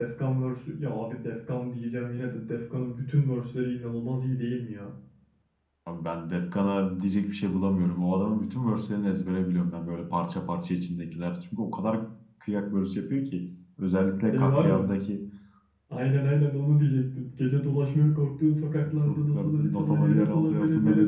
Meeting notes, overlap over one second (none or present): present